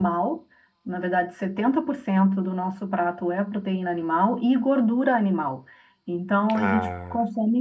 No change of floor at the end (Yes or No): Yes